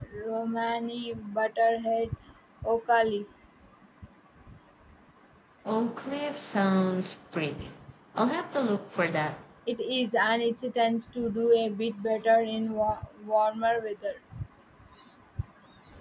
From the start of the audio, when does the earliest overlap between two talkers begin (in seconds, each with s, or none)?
none